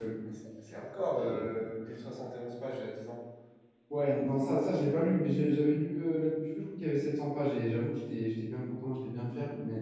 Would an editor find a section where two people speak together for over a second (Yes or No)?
No